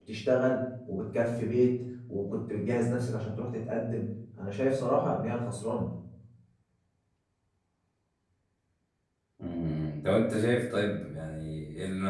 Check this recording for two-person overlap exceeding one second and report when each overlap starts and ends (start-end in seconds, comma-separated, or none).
none